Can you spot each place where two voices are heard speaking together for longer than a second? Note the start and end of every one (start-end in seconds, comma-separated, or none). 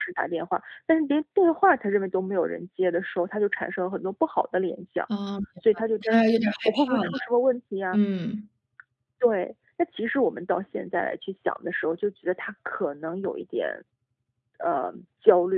6.0-7.3